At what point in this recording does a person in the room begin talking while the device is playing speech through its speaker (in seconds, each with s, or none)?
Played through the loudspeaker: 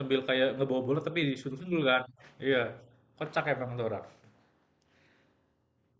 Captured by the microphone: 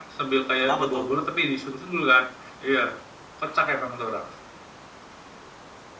0.6 s